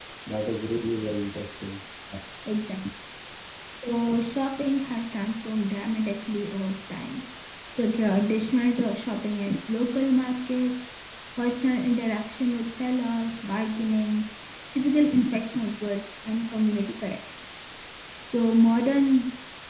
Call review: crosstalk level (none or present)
none